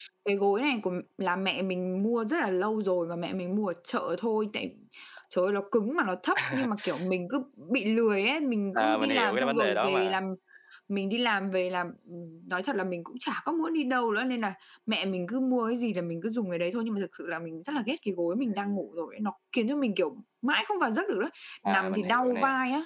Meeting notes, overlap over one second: present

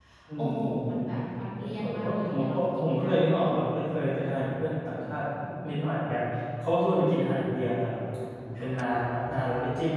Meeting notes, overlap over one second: present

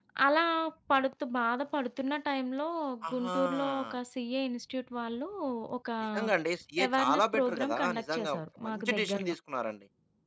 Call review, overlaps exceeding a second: present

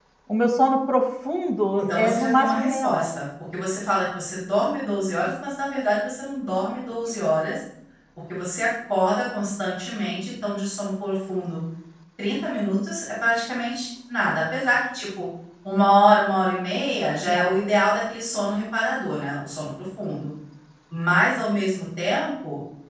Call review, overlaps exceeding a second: present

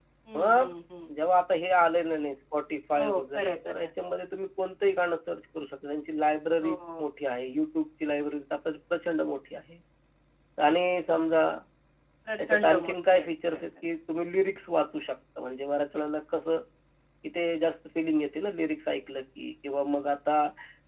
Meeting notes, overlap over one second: present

